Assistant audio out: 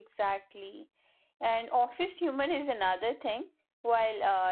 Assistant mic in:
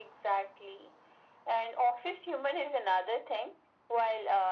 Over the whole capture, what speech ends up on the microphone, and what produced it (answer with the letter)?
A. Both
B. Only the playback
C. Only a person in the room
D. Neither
B